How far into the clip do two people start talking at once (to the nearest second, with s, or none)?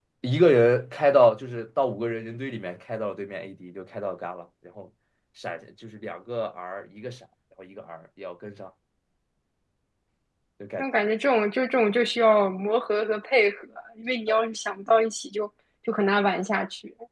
none